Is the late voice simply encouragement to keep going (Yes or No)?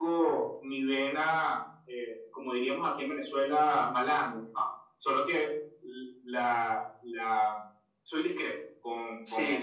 No